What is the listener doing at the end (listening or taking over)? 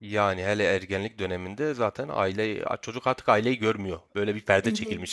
taking over